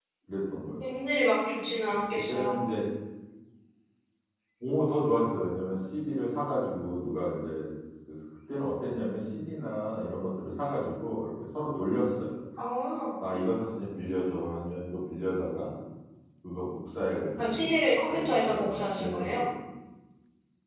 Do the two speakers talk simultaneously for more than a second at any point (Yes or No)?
Yes